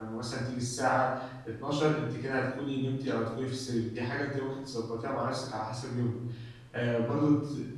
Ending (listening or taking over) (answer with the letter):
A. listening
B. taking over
A